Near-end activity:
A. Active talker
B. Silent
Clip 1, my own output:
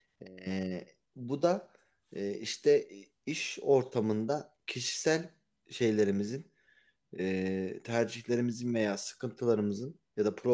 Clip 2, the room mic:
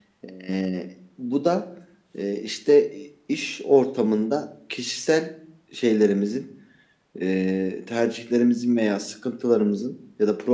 B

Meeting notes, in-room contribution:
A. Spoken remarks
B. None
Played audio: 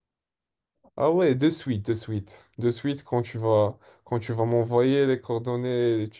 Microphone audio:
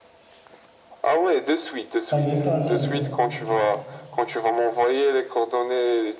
A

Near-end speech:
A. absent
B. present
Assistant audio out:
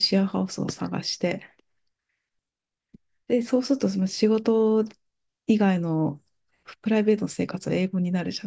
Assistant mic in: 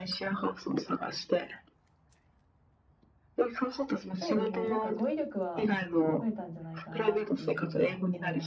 B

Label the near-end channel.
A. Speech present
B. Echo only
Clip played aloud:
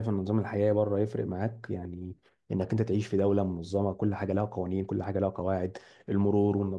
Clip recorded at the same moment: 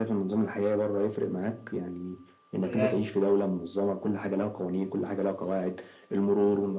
A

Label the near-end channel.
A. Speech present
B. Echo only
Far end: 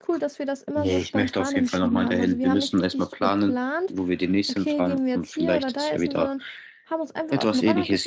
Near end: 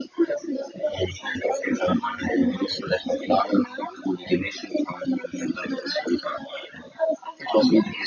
B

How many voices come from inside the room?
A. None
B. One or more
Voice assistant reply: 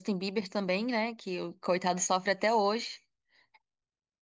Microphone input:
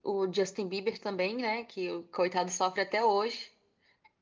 A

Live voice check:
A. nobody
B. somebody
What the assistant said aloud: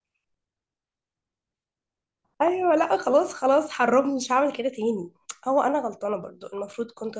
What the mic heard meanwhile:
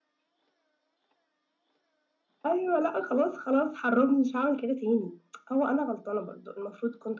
A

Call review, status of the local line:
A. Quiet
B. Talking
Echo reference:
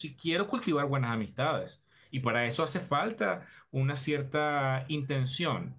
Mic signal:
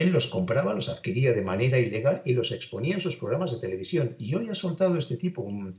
B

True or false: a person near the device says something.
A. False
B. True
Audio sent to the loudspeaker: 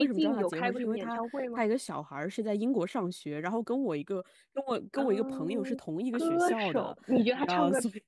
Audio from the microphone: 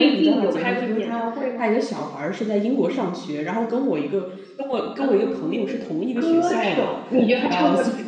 A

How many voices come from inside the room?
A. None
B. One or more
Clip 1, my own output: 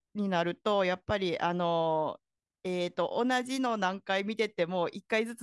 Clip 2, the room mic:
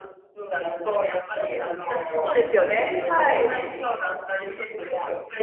B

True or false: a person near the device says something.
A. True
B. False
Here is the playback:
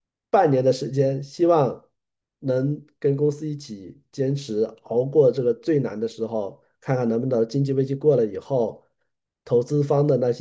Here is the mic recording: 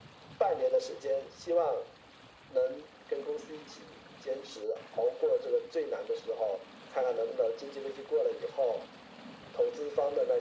B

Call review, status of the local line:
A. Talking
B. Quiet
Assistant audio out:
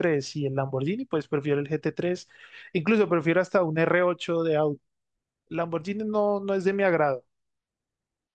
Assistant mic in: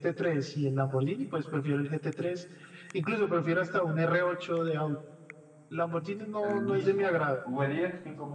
A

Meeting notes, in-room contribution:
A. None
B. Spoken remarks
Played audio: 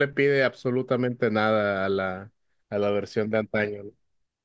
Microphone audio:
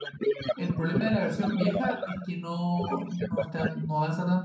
B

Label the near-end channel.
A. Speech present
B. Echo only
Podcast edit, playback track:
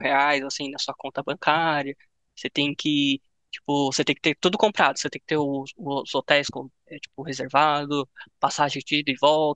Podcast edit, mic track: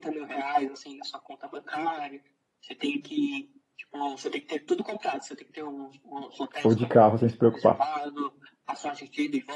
A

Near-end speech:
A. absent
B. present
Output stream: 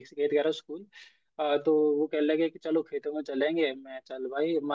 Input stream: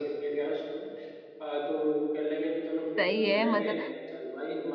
B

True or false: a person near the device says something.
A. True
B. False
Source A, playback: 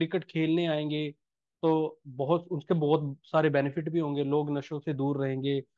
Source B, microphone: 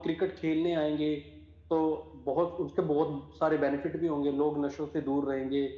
B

